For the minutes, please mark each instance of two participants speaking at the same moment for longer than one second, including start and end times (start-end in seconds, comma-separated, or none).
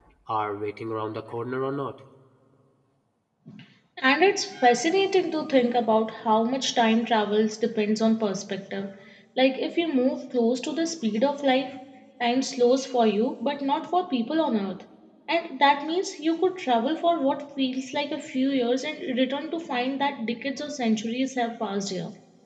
none